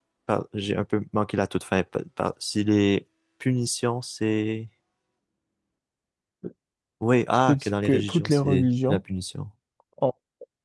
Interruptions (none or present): present